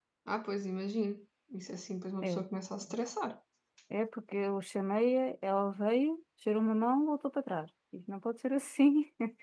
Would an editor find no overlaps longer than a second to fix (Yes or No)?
Yes